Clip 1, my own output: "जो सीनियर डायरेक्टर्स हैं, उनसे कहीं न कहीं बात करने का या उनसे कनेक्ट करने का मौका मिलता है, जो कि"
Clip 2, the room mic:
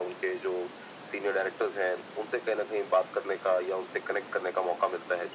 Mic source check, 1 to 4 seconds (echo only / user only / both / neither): echo only